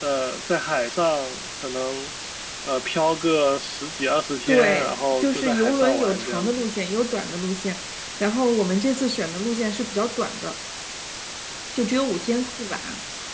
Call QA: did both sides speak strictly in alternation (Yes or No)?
No